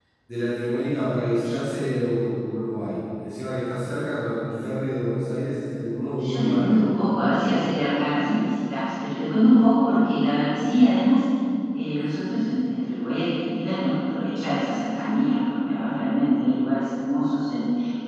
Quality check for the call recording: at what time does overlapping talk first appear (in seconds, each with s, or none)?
6.2 s